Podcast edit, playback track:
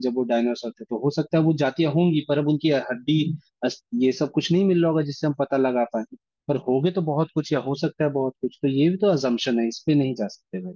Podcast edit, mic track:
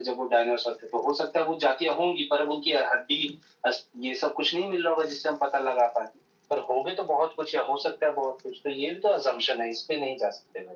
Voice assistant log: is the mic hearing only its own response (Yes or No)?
Yes